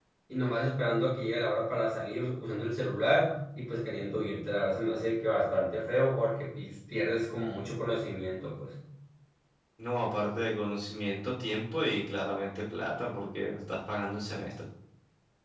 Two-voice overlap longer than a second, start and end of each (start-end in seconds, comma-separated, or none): none